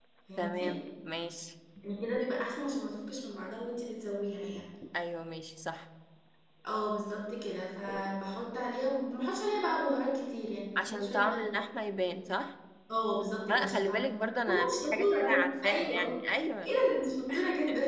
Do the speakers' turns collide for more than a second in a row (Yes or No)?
Yes